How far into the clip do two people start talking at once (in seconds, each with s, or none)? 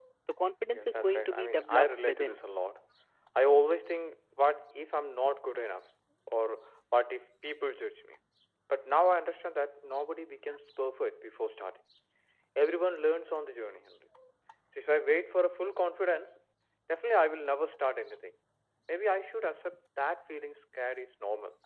0.7 s